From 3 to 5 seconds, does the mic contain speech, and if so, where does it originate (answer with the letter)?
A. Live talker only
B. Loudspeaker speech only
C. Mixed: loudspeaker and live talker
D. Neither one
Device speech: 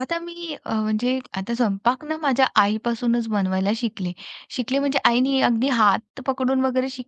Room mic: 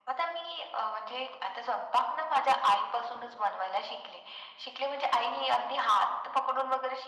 B